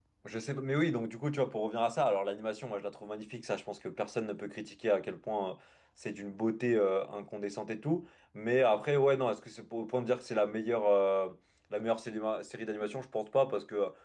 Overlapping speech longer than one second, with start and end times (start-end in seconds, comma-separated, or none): none